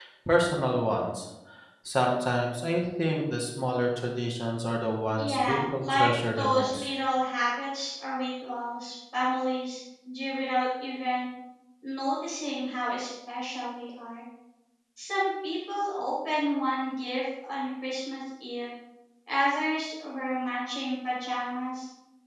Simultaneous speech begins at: 5.2 s

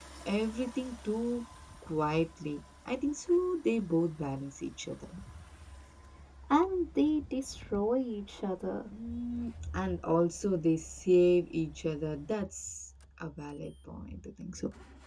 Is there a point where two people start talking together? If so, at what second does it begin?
none

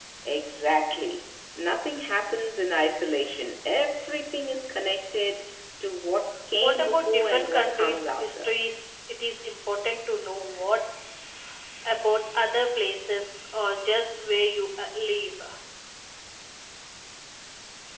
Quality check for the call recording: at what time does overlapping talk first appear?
6.6 s

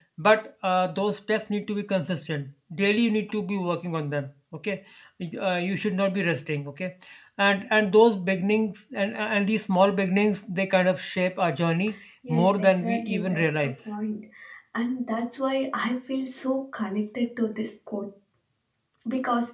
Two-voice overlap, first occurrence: 12.4 s

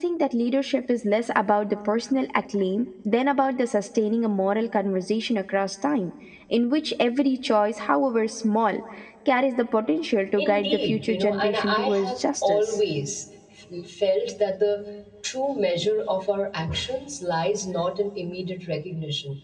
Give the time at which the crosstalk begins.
10.4 s

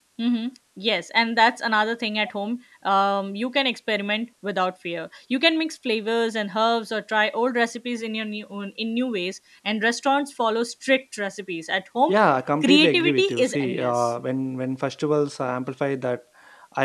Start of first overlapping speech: 12.6 s

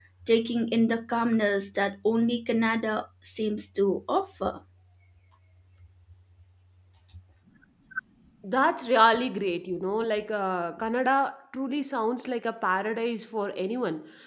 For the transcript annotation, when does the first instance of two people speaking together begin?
none

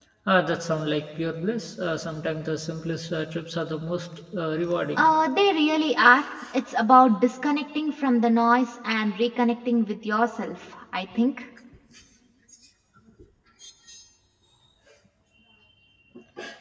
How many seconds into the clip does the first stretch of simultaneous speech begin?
none

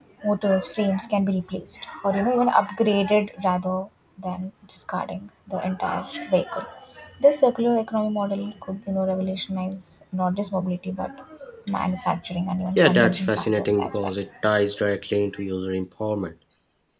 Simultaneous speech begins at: 12.8 s

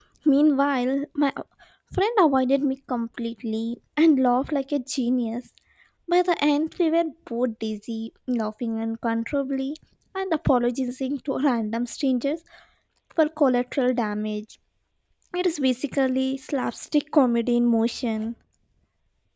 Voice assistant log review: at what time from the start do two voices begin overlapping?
none

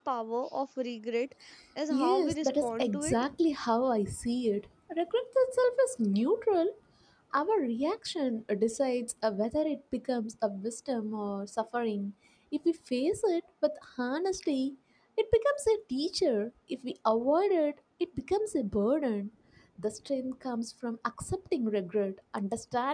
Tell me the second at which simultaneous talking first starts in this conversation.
1.9 s

